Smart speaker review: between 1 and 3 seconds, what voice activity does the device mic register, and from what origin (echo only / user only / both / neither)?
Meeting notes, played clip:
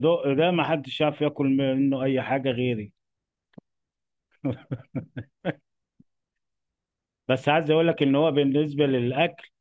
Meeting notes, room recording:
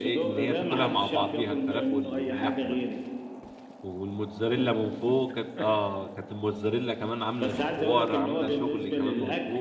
both